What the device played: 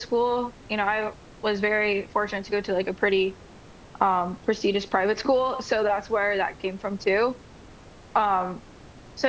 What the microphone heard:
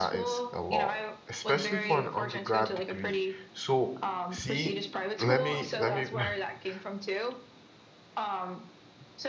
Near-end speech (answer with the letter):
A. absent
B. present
B